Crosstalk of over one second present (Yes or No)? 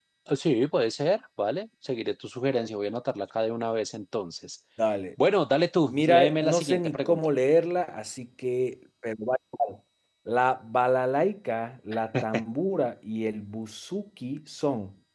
Yes